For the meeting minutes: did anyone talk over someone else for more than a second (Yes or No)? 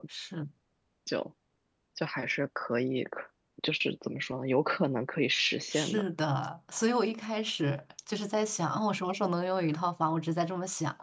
No